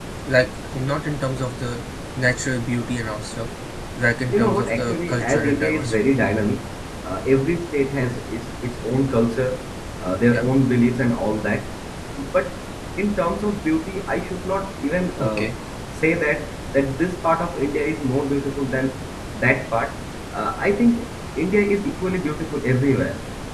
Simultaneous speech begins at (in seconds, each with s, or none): 4.3 s